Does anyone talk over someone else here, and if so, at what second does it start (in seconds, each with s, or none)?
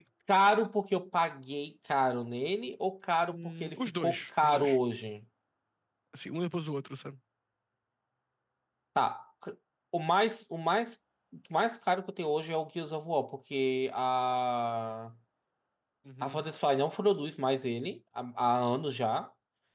3.2 s